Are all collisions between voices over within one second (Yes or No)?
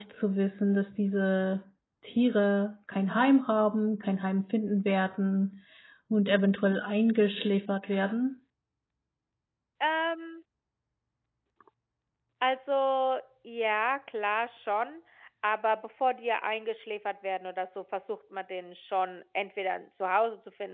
Yes